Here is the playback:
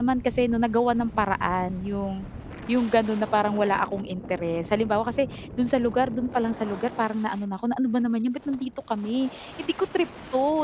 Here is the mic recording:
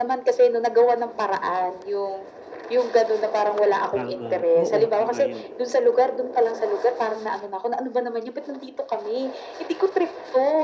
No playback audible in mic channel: No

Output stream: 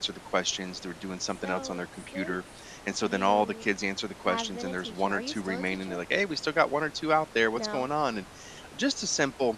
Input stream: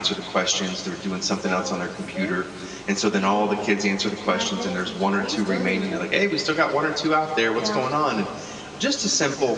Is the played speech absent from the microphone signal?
No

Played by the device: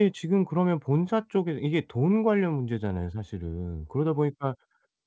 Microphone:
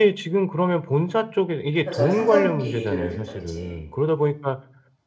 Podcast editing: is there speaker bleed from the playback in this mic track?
Yes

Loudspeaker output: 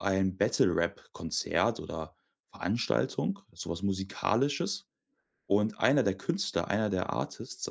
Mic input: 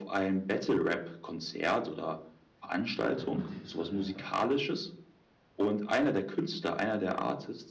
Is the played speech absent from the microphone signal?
No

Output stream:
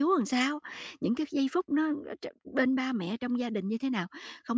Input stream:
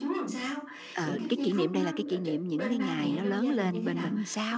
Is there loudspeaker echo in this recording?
Yes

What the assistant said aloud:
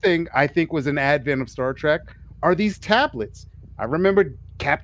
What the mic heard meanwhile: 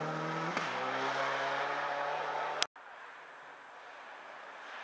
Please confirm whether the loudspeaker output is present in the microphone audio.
No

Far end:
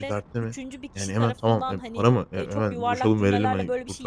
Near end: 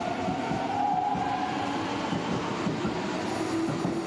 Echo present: No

